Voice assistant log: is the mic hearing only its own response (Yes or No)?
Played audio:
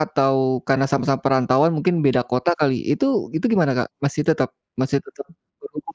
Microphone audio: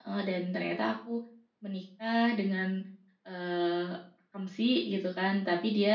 No